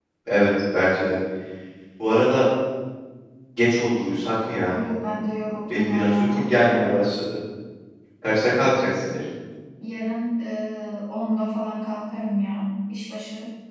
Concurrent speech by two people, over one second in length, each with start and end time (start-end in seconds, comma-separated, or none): 5.7-7.2